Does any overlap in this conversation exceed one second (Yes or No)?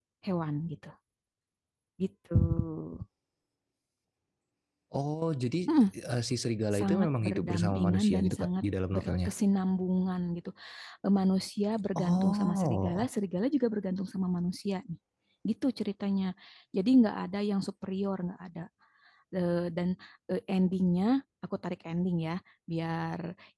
Yes